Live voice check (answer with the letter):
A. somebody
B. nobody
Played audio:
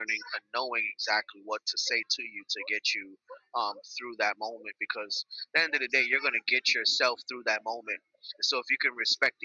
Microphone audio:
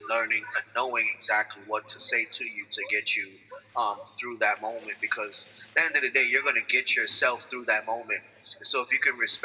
B